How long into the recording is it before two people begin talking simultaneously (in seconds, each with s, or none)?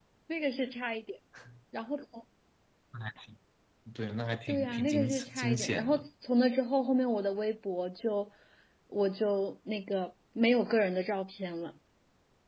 4.5 s